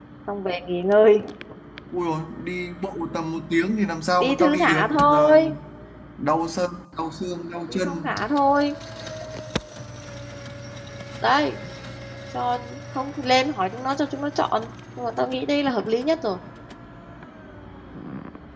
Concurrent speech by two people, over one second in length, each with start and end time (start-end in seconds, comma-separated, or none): 4.2-5.4